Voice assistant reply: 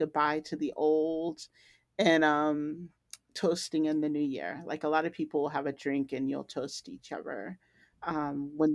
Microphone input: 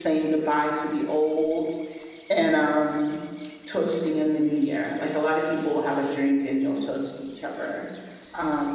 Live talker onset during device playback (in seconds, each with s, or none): none